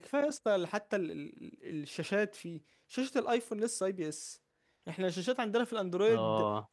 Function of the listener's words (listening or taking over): listening